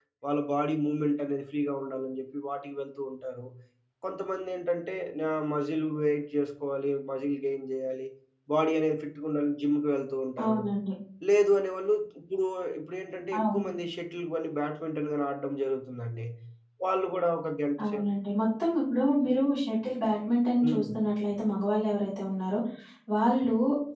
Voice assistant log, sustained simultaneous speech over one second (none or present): none